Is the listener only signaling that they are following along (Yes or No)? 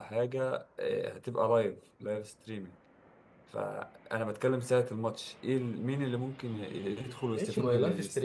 No